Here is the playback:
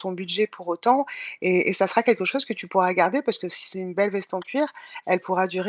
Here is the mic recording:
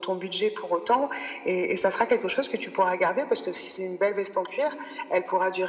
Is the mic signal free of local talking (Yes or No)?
Yes